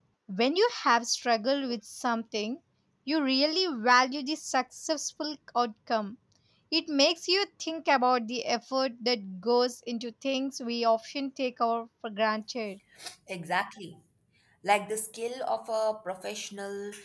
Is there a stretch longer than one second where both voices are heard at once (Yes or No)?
No